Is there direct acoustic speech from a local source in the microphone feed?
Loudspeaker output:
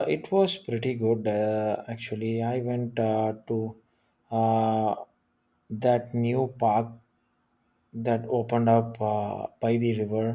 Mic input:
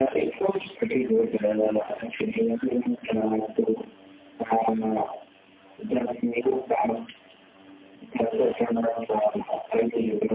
No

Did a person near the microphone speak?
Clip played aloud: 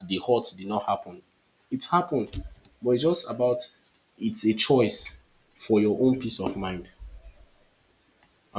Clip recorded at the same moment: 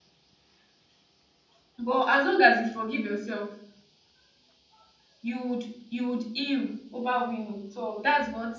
Yes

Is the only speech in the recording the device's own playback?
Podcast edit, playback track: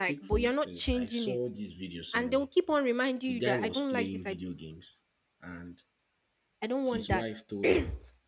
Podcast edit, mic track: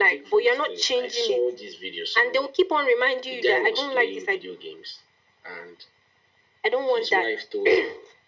Yes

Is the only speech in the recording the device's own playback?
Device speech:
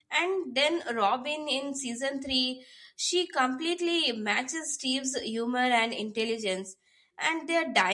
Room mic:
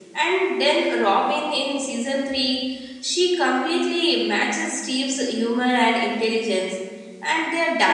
Yes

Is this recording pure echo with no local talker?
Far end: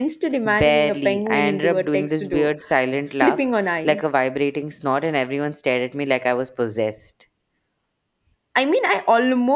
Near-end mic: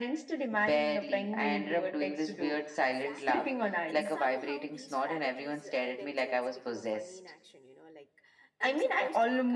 No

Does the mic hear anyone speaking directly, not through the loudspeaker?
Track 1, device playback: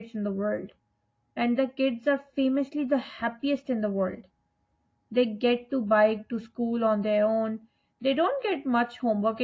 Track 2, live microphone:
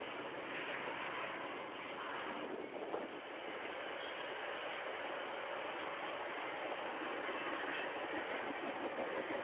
No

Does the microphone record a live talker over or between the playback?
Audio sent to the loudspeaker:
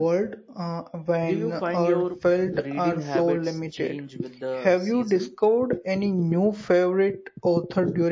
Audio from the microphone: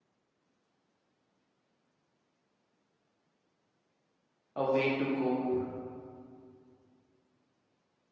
Yes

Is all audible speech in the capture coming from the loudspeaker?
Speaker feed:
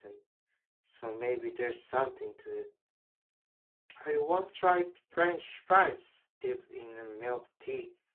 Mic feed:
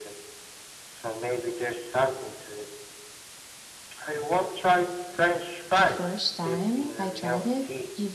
No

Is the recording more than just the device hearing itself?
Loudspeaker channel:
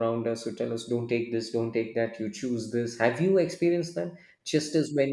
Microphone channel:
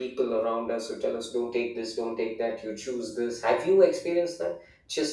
No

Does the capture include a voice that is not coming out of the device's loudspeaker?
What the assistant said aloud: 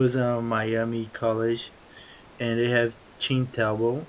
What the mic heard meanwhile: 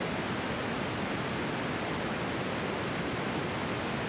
No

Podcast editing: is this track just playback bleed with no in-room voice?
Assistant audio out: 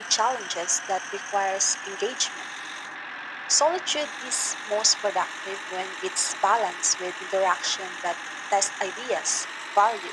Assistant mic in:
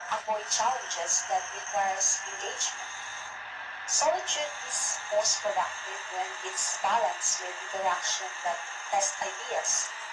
Yes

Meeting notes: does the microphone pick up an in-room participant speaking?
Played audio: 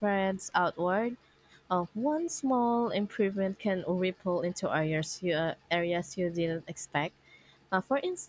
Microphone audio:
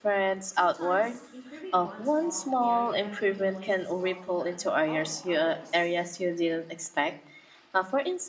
Yes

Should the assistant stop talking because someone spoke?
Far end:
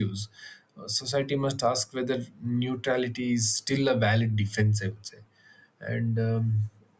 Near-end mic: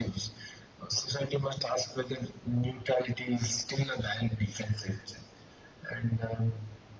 No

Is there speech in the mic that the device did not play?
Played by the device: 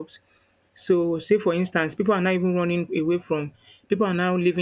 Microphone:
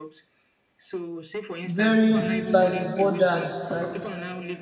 Yes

